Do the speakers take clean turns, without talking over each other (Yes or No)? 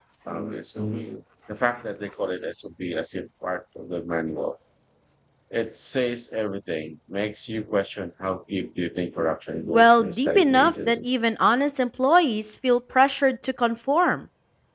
No